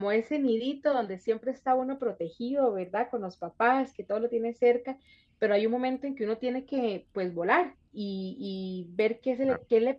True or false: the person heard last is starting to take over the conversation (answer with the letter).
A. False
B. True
A